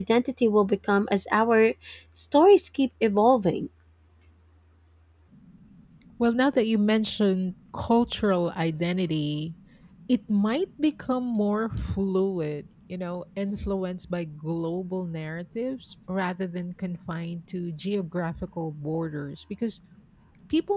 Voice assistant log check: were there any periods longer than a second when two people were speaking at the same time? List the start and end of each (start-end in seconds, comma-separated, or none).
none